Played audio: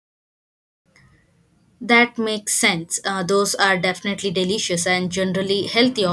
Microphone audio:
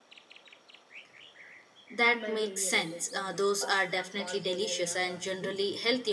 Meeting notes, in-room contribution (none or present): present